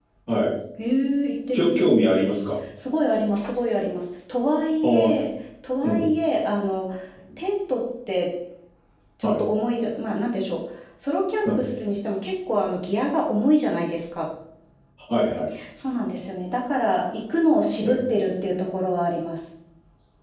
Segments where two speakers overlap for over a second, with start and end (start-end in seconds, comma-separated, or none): none